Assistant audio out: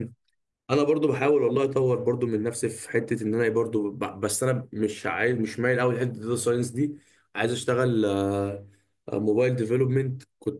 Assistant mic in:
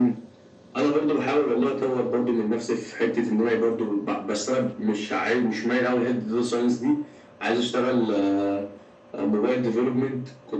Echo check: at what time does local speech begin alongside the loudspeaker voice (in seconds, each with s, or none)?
none